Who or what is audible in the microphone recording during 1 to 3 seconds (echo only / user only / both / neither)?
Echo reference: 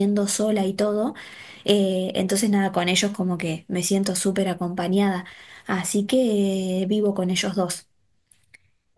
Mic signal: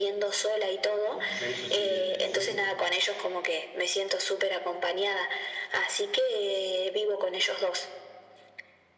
both